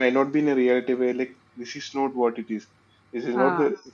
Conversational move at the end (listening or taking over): listening